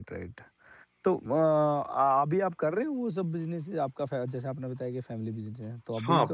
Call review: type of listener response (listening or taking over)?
taking over